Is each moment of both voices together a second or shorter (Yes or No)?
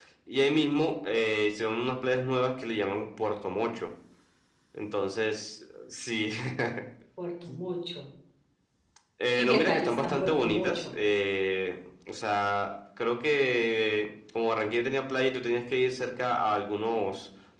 No